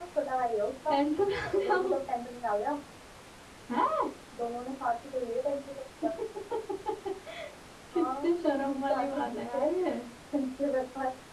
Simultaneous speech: Yes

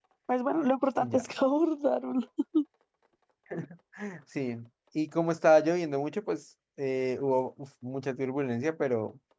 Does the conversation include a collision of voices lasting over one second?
No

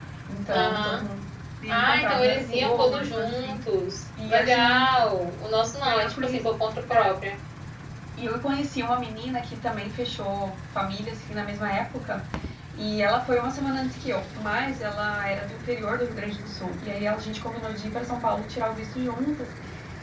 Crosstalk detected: Yes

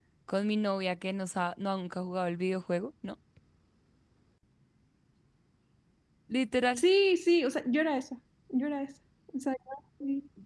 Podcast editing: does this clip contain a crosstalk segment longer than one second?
No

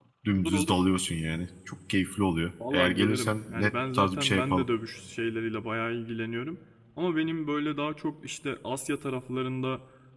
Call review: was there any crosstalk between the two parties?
Yes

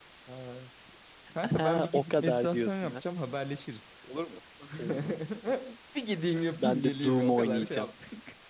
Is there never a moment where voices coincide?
No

